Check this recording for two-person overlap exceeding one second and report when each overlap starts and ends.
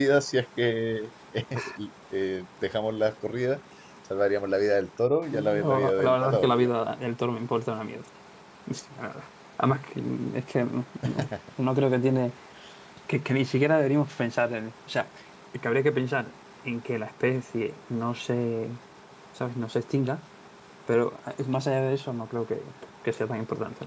5.3-6.7

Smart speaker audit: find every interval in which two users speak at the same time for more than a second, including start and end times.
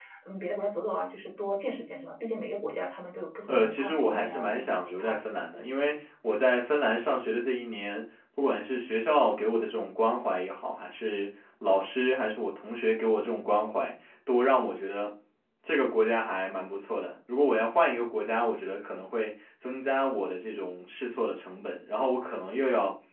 3.5-5.2

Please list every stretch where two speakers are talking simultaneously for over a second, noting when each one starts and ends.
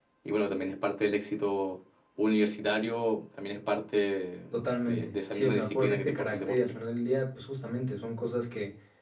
4.9-6.6

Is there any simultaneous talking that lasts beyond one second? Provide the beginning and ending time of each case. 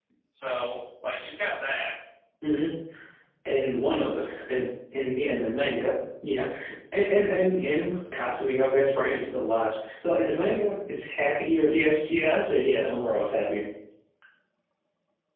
none

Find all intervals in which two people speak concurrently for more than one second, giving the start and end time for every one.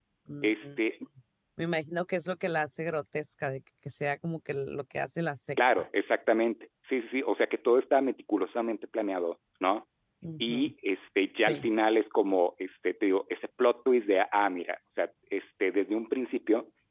none

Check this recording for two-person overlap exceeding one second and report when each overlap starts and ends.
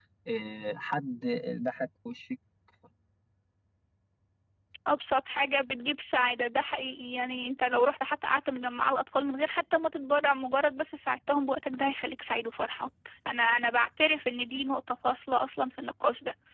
none

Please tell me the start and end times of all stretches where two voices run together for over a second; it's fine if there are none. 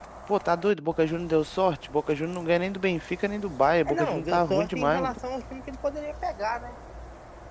3.9-5.1

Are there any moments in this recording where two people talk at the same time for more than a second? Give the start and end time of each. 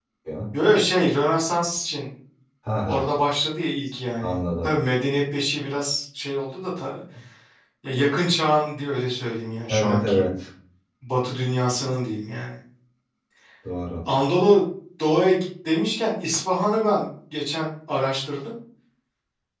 none

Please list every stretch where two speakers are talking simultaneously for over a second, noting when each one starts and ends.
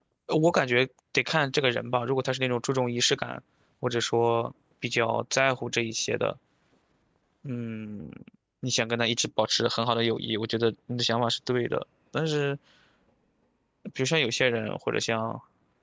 none

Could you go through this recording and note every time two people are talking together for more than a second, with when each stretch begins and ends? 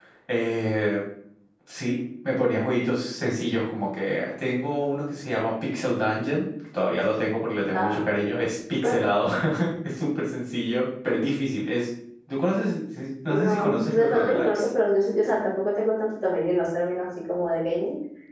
13.3-14.7

